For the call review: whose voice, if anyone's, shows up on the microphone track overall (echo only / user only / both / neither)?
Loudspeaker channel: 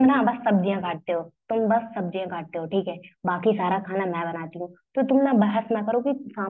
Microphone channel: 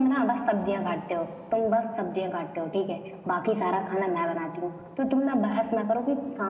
echo only